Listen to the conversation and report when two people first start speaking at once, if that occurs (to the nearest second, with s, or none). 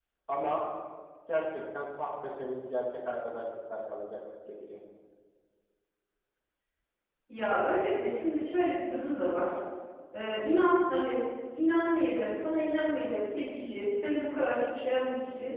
none